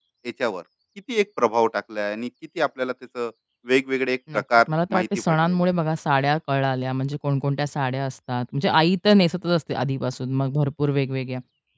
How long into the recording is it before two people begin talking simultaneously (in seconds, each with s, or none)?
4.3 s